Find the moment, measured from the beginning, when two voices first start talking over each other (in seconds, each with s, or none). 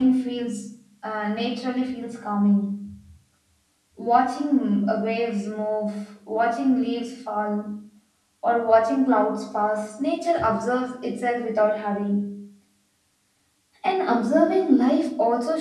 none